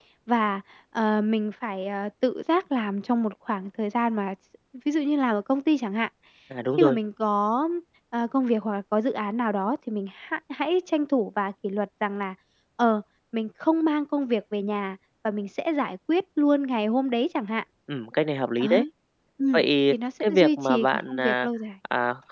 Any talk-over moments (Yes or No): Yes